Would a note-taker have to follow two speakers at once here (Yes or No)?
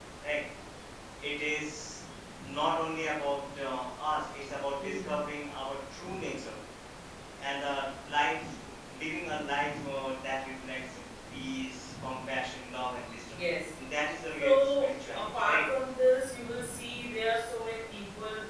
Yes